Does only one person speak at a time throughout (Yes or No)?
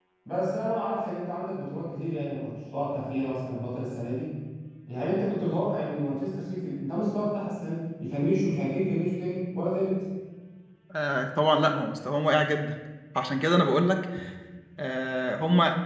Yes